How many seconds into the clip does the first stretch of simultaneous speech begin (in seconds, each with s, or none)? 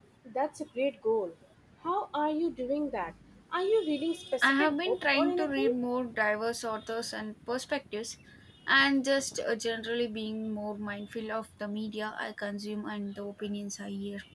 4.4 s